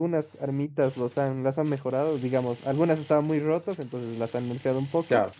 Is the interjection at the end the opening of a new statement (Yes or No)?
No